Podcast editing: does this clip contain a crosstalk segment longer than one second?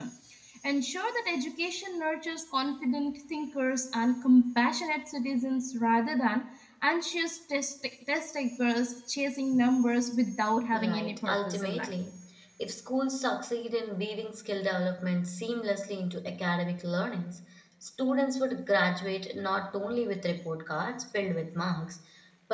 Yes, from 10.7 s

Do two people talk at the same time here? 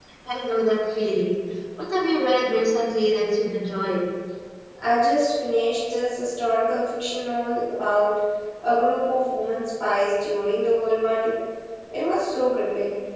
No

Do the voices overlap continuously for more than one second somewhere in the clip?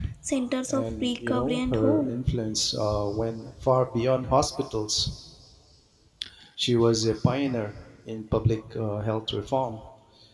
Yes, from 0.7 s

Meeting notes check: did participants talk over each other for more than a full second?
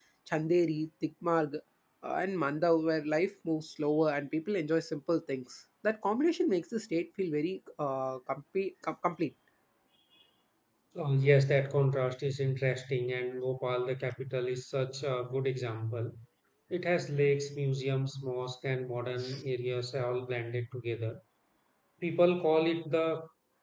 No

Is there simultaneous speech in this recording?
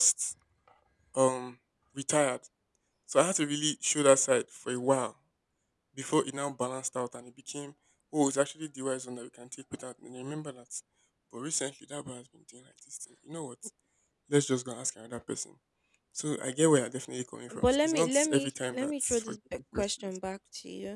Yes, from 17.5 s

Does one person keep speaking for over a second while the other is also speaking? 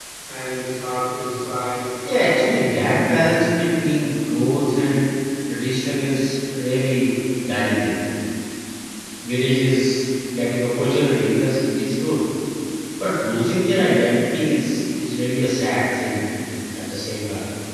Yes, from 2.0 s

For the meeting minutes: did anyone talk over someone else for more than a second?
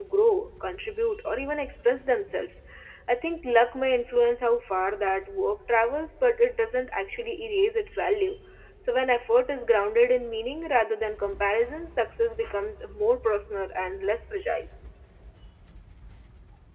No

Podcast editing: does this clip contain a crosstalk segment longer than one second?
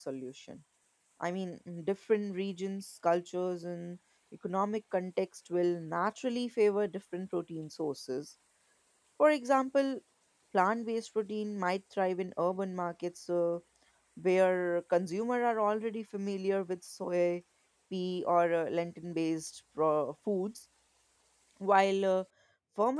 No

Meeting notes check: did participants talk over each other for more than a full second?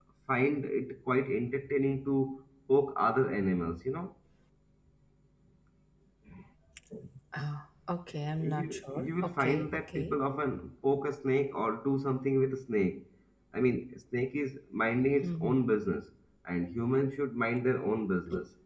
Yes, from 8.4 s

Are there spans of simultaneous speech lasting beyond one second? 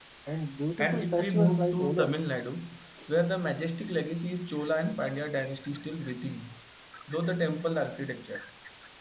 Yes, from 0.8 s

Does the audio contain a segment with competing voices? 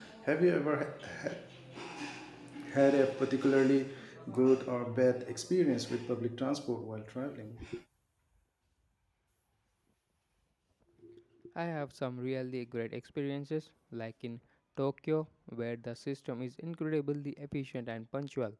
No

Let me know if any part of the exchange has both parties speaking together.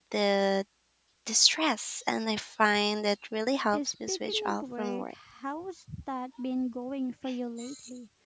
Yes, from 3.7 s

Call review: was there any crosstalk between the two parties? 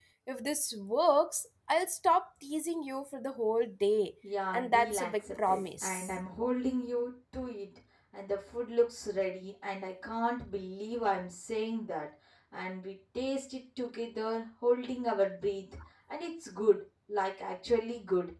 Yes, from 4.5 s

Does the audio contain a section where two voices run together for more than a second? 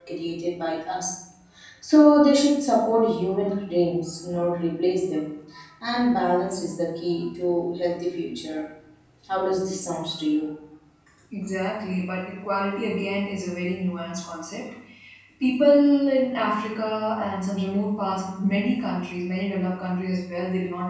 No

